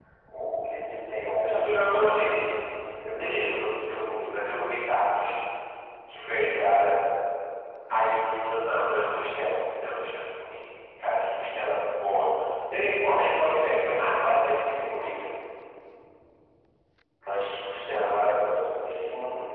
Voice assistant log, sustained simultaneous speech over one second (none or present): present